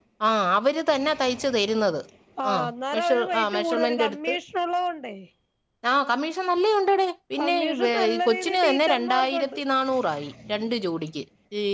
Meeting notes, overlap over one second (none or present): present